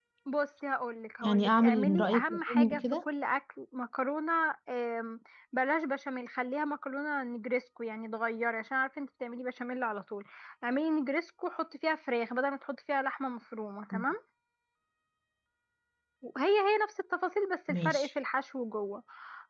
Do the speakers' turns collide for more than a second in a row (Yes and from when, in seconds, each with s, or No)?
Yes, from 1.2 s